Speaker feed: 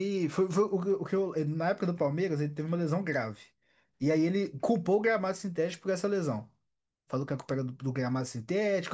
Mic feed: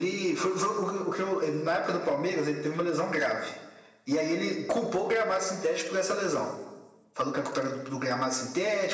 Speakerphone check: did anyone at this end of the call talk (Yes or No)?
No